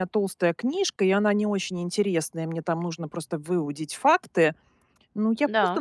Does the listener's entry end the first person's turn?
No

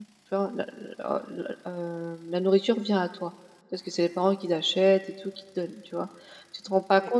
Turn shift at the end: No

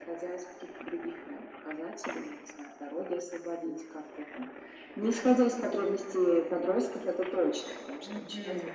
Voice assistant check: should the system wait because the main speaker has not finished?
No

